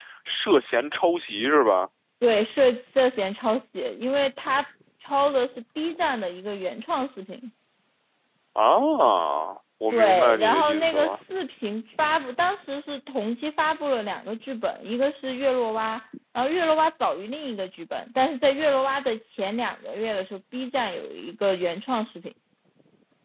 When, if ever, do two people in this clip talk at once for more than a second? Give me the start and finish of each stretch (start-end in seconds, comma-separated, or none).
9.9-11.2